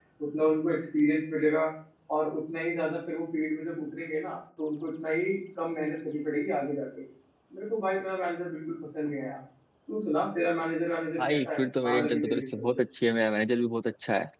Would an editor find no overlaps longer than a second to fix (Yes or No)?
No